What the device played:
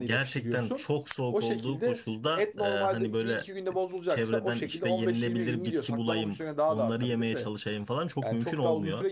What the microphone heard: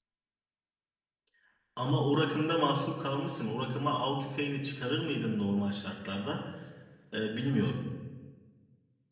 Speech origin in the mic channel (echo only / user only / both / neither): user only